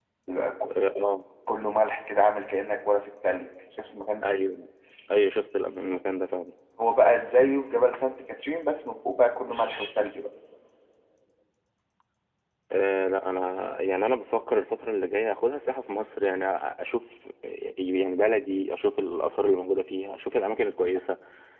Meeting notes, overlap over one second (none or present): none